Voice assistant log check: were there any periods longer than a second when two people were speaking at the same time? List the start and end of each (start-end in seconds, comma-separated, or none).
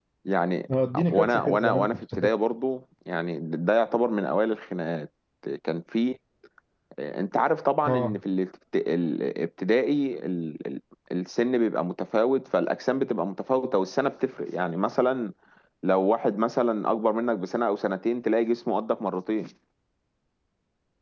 1.1-2.3